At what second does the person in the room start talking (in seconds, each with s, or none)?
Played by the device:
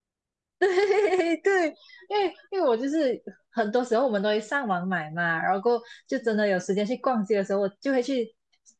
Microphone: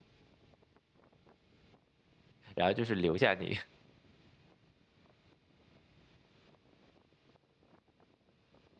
2.6 s